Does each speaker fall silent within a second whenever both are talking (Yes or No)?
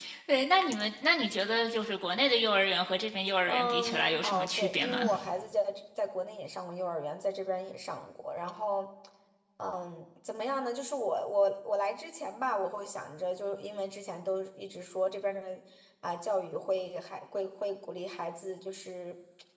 No